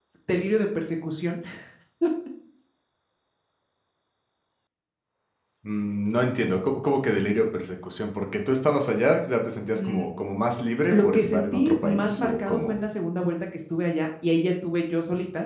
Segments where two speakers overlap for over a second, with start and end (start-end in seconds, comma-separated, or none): 10.9-12.8